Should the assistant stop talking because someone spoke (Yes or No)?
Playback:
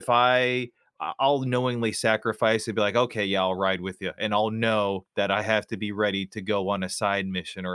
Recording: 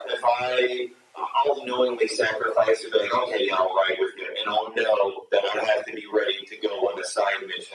No